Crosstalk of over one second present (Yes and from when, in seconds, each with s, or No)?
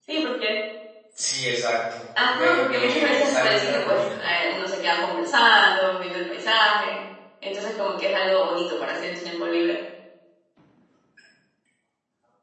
Yes, from 2.2 s